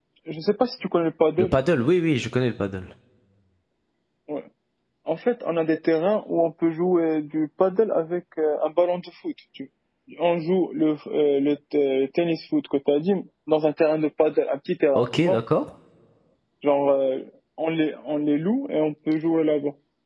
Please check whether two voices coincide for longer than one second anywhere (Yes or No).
No